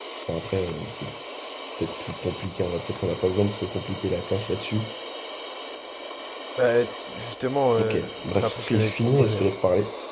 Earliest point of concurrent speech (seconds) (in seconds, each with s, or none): 7.8 s